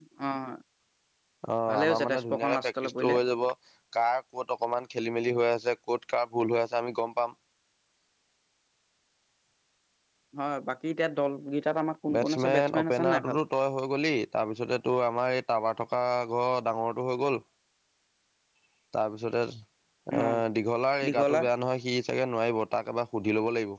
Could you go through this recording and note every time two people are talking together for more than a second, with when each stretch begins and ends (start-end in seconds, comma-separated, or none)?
1.7-3.1, 12.1-13.4